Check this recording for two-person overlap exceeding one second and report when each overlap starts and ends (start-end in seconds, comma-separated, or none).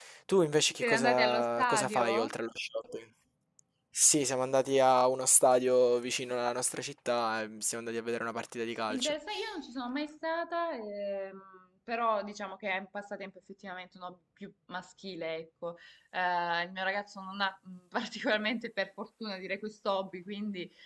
0.8-2.3